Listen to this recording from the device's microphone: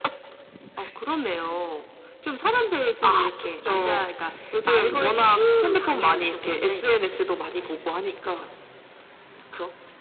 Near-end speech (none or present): none